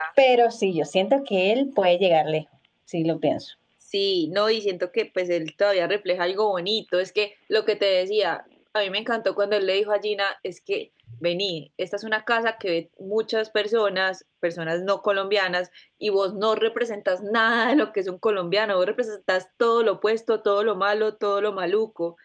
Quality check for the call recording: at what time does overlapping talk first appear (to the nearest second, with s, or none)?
none